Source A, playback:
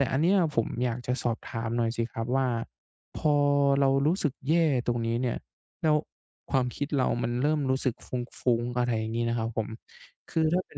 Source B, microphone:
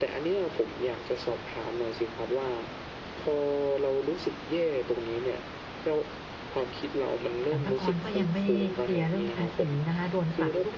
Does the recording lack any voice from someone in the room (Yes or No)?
No